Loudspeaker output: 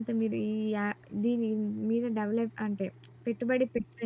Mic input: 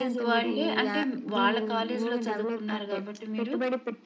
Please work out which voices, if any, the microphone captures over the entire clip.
both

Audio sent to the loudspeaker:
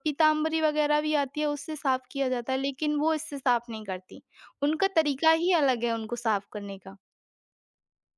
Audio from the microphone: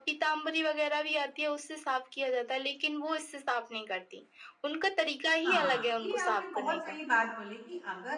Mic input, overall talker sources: both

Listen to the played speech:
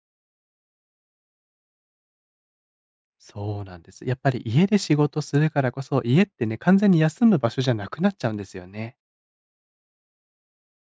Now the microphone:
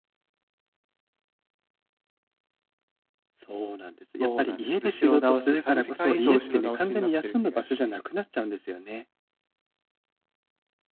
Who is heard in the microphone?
both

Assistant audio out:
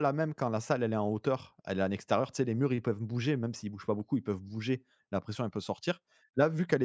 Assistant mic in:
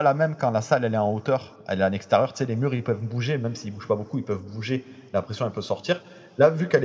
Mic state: echo only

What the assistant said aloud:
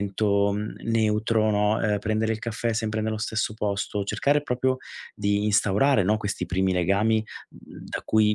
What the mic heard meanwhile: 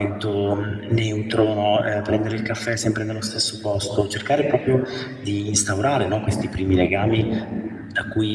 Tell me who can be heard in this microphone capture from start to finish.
echo only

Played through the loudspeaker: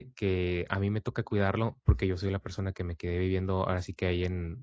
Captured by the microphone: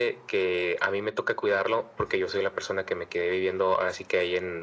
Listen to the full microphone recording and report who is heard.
echo only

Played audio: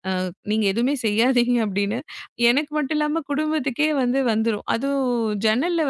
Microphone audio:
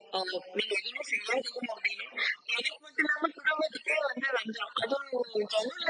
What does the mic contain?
echo only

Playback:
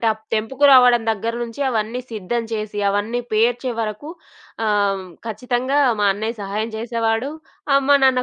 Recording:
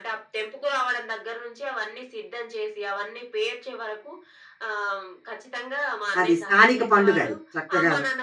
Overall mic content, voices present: both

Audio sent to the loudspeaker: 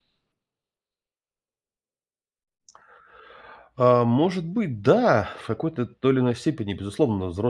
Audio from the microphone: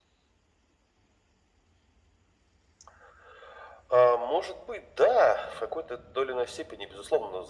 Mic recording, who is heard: echo only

